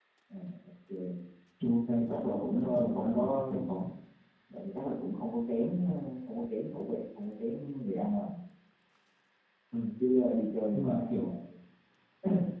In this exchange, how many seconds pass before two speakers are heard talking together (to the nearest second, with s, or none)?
2 s